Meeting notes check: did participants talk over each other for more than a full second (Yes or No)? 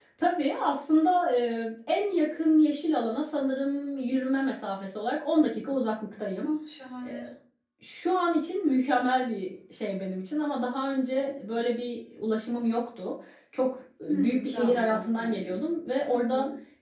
Yes